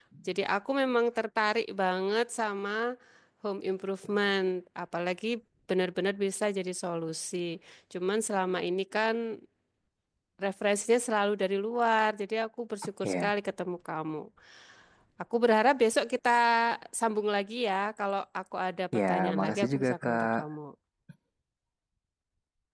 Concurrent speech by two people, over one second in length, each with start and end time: 19.0-20.4

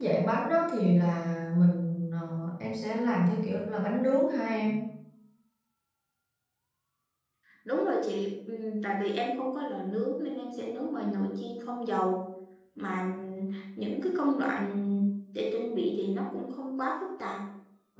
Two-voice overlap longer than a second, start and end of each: none

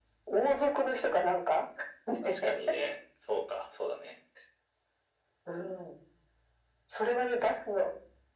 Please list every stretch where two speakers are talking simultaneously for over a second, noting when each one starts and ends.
none

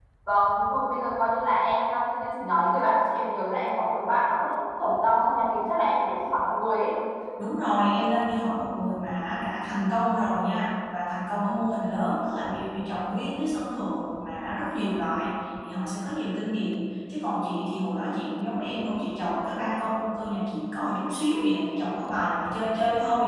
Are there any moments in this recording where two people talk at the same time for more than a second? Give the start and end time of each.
none

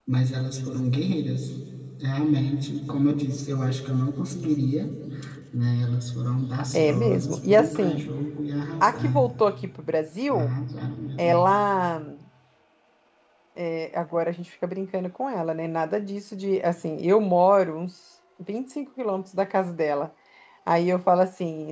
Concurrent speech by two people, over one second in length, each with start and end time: 6.7-8.0

